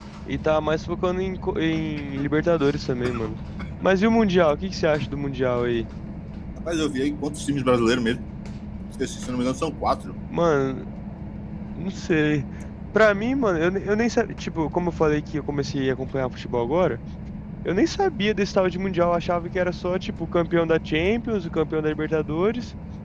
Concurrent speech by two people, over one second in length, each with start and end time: none

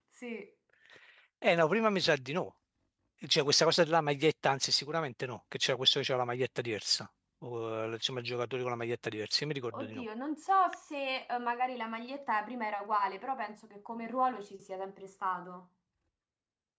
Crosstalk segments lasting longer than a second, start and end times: none

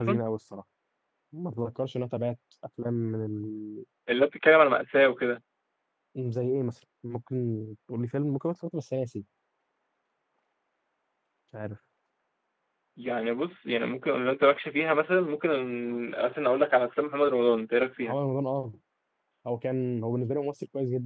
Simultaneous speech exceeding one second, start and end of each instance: none

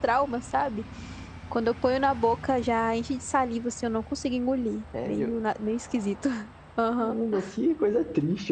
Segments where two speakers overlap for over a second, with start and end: none

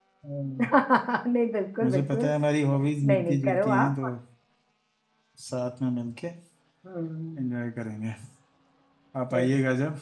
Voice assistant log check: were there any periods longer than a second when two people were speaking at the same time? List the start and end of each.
2.8-4.0

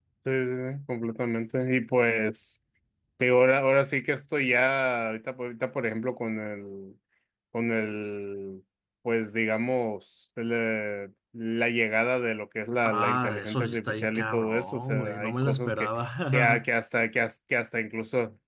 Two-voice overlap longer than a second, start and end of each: 12.8-15.9

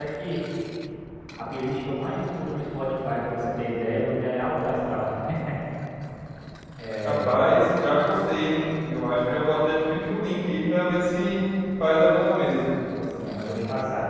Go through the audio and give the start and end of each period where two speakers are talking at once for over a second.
none

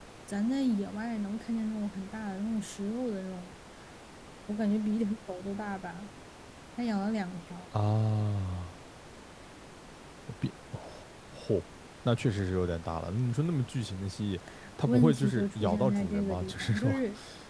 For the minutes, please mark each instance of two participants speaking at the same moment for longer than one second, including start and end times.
14.9-17.0

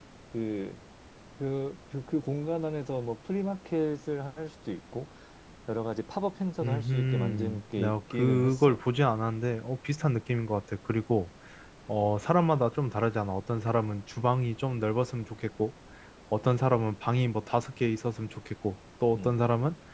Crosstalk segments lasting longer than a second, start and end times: 6.6-8.8

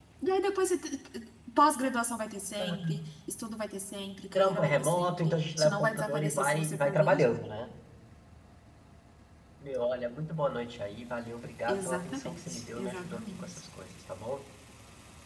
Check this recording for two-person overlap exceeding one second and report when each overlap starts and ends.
4.3-7.4, 11.7-13.4

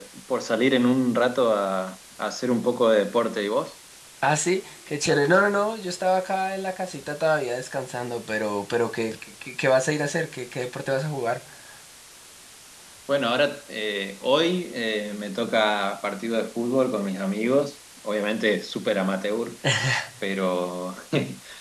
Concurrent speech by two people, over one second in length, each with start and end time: none

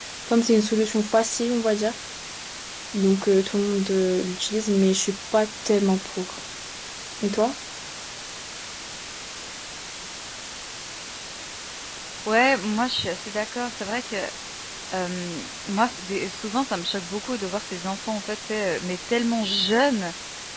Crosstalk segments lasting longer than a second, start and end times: none

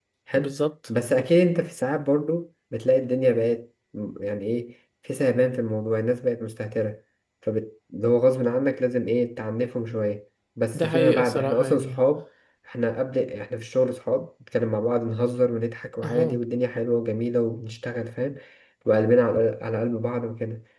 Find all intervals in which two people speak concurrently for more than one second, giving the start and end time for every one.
10.7-12.0

